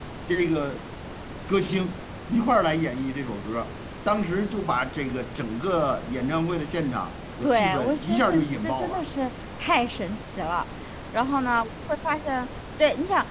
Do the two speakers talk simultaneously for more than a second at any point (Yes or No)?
Yes